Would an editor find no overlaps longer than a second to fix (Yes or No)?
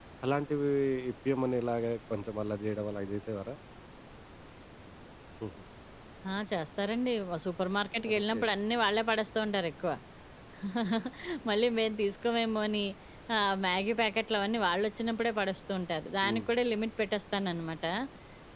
Yes